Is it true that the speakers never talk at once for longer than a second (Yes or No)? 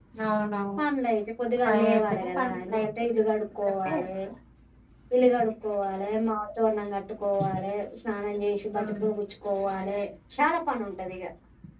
No